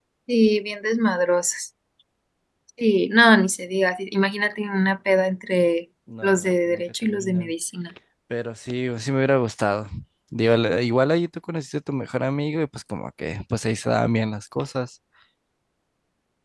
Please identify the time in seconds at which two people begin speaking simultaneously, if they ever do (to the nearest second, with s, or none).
6 s